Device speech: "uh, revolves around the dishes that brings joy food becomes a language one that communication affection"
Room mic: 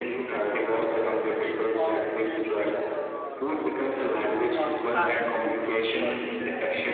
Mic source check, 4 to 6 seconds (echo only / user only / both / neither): both